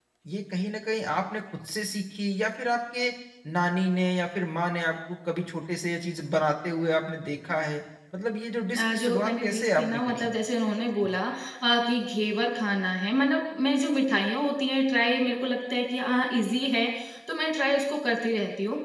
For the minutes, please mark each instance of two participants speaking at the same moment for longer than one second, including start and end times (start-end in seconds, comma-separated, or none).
8.8-10.3